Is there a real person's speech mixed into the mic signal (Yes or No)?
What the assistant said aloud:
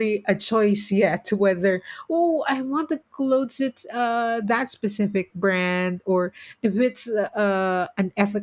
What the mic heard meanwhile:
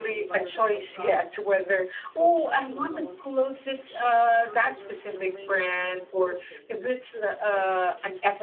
Yes